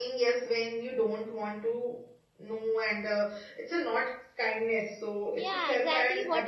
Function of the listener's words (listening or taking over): taking over